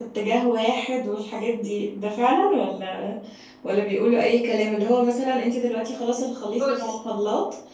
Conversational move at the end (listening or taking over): listening